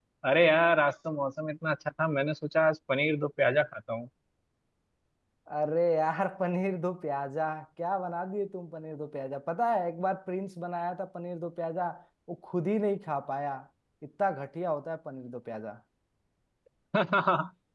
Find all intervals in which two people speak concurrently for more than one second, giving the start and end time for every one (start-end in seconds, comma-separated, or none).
none